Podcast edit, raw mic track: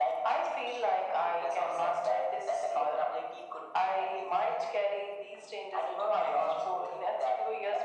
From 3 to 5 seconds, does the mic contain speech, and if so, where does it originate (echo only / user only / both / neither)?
echo only